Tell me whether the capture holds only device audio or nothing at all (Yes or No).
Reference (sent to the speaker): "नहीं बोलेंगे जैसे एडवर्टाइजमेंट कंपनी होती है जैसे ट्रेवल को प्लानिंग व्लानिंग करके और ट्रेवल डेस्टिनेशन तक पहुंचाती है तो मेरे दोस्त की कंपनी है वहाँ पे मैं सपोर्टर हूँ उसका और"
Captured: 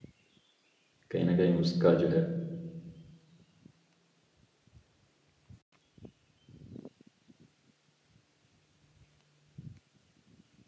No